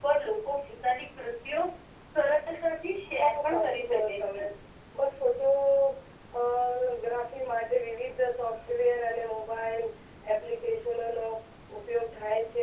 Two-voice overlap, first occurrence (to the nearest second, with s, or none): 3 s